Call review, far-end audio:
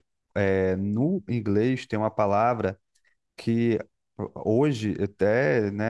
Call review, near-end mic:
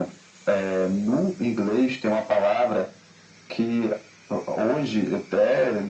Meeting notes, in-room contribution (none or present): none